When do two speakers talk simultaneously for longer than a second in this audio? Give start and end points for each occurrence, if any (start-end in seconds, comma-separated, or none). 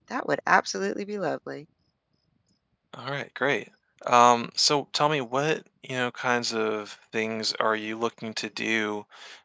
none